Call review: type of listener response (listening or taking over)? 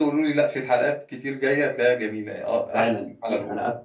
taking over